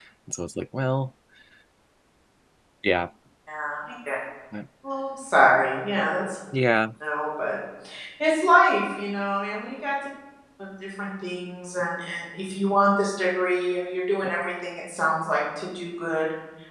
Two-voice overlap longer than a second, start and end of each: none

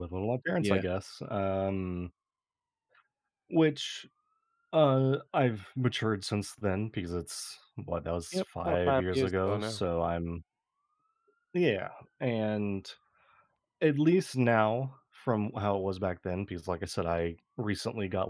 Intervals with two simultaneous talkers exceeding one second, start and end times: 8.3-9.8

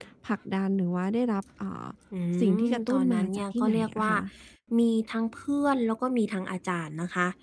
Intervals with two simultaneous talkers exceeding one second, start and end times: 2.7-4.1

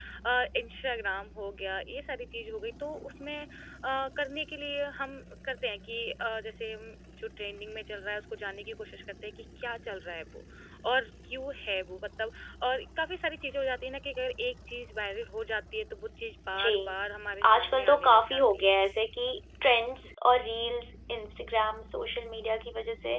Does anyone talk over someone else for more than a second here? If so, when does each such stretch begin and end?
17.5-18.7

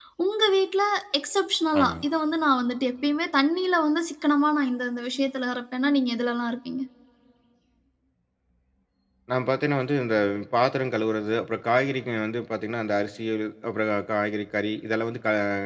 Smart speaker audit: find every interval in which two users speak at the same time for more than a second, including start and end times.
none

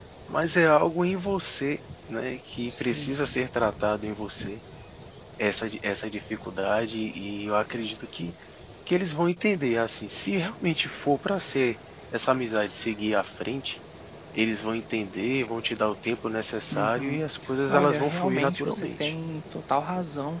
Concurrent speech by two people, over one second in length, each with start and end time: 17.7-19.1

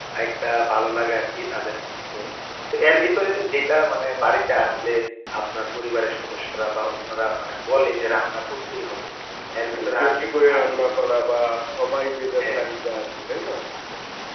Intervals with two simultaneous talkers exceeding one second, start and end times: 9.7-11.3

